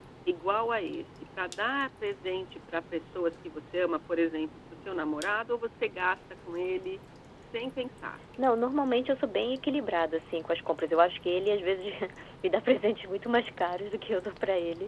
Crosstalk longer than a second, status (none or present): none